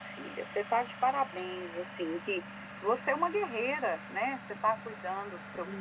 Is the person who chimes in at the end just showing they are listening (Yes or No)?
Yes